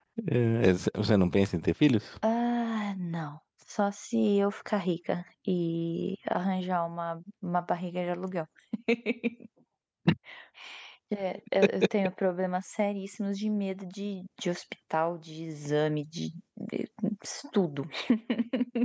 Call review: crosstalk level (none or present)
none